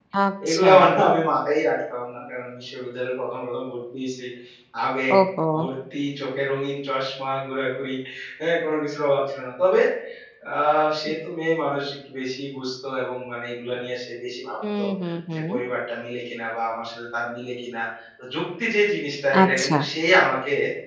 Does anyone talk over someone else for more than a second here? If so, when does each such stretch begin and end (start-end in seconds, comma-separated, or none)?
none